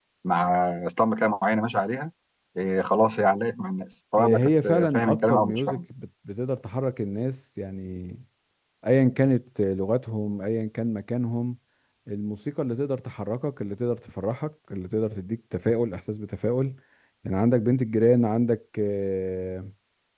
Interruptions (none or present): present